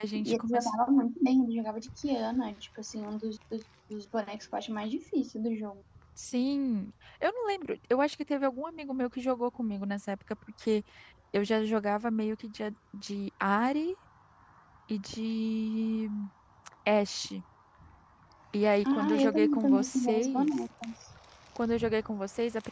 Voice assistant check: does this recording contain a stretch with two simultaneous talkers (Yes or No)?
Yes